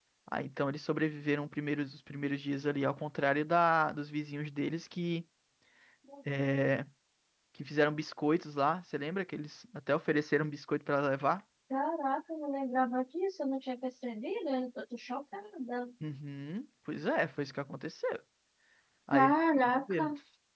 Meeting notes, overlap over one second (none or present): none